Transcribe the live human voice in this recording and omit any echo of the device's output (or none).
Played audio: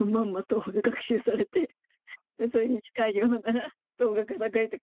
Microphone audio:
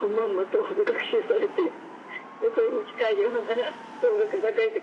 none